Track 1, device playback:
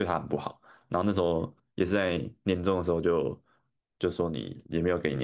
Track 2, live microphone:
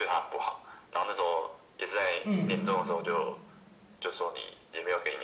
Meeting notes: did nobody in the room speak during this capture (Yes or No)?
No